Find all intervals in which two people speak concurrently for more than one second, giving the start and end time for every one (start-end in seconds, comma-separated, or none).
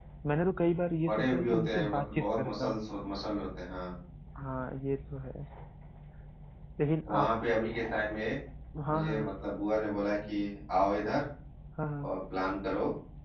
1.1-2.8